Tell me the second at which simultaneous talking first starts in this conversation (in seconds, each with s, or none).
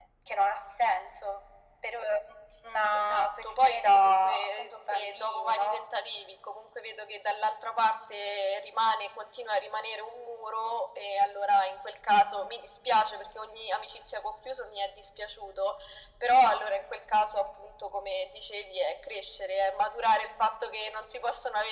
2.9 s